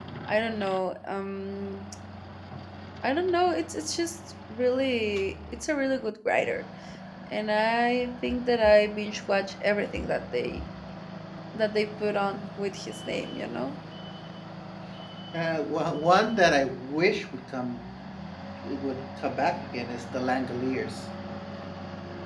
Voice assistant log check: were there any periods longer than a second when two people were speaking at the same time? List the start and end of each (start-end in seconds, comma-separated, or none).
none